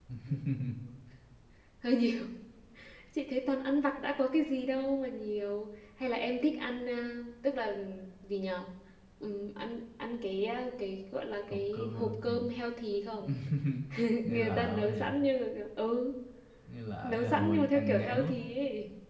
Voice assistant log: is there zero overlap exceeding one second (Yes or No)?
No